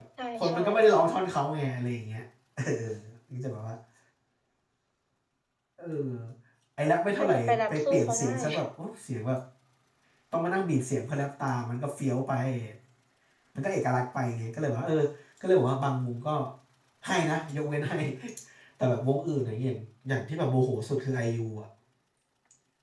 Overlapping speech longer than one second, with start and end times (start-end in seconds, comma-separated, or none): 7.2-8.4